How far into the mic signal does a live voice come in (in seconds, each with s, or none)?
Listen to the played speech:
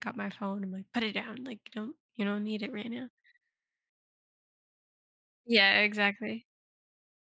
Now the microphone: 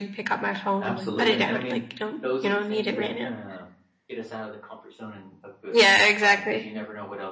0.8 s